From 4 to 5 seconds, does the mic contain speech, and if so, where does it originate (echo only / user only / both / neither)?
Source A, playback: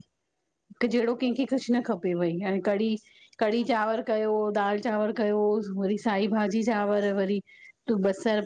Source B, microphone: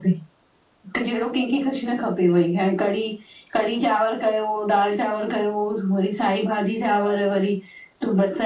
echo only